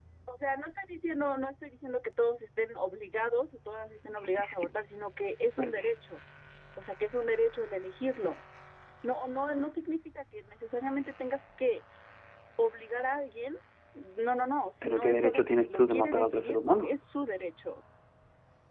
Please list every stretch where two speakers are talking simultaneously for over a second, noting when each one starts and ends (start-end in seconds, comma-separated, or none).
14.8-16.9